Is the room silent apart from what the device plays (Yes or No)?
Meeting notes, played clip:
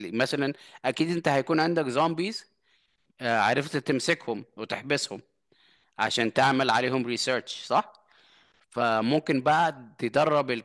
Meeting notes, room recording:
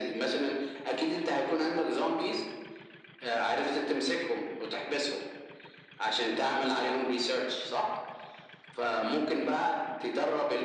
Yes